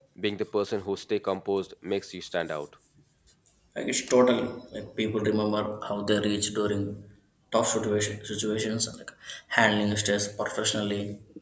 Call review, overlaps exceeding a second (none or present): none